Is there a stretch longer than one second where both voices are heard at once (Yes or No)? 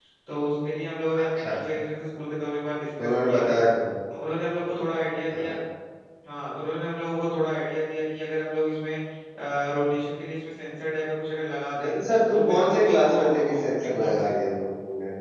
Yes